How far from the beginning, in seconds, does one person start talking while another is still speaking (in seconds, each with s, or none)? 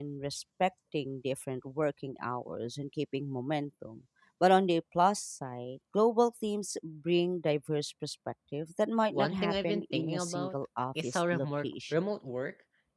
9.1 s